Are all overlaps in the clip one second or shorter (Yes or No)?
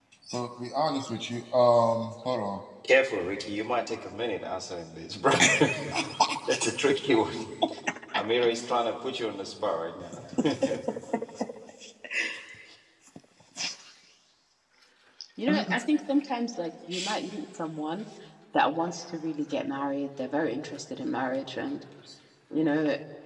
Yes